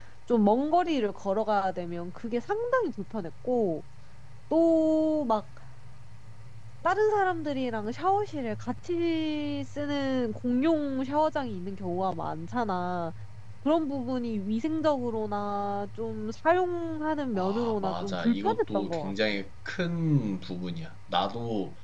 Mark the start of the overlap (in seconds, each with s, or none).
17.4 s